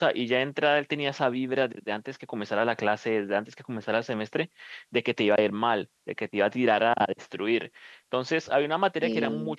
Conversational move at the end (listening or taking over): listening